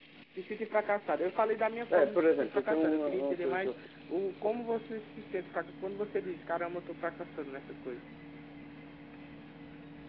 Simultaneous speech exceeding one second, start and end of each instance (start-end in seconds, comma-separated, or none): 1.9-3.7